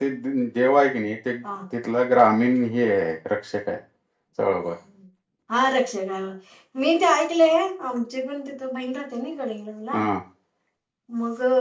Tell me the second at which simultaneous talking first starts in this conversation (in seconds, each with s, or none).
none